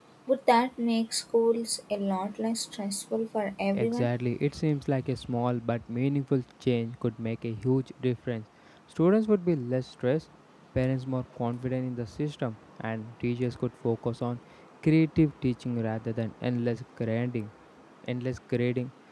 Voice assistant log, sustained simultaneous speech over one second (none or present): none